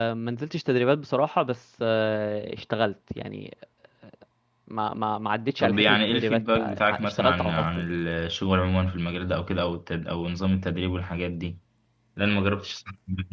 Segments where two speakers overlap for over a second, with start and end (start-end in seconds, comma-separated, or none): 5.6-7.9